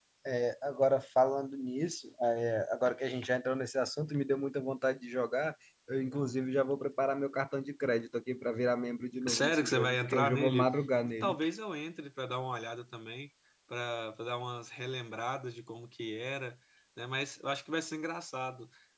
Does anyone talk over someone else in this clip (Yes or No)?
Yes